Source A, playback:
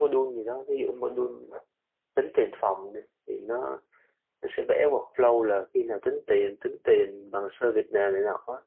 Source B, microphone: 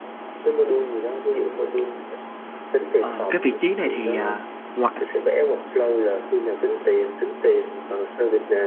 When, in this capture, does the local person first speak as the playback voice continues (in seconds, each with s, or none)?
3.0 s